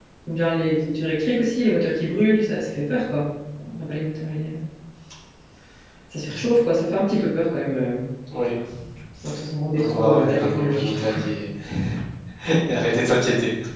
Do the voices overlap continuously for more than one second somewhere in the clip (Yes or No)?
Yes